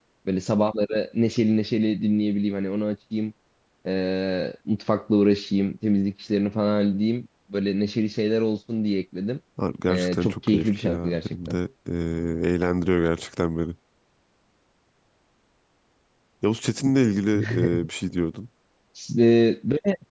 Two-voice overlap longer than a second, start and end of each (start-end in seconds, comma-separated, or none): 9.9-11.6